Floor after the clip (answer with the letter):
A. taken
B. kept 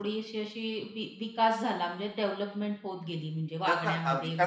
A